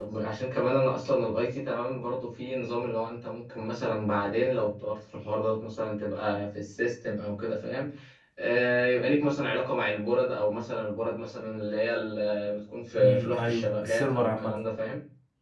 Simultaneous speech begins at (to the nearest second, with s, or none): 13 s